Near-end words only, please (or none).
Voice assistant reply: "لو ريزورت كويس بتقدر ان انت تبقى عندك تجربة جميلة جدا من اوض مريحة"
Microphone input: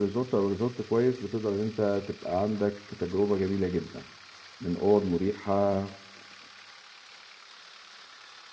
none